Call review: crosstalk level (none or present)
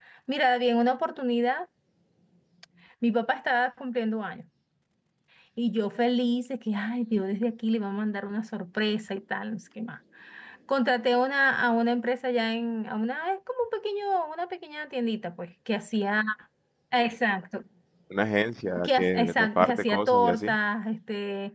present